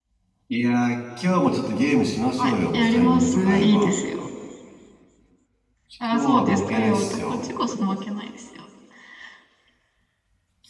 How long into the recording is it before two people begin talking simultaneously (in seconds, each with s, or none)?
2.4 s